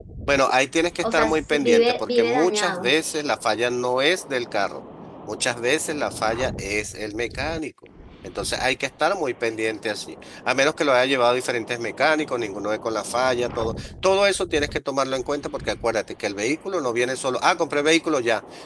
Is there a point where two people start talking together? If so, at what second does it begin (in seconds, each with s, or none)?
1.0 s